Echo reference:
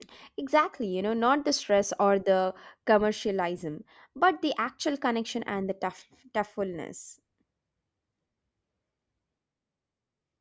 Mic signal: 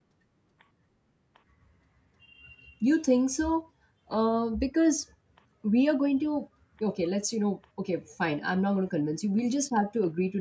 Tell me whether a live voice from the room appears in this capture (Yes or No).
Yes